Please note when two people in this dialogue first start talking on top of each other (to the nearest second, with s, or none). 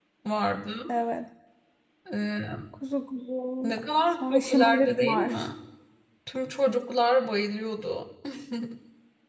4 s